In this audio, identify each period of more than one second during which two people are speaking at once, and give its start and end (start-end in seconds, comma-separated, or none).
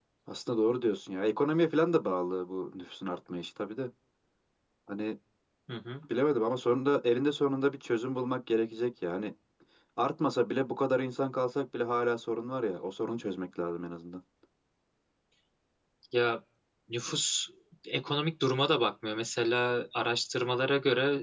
none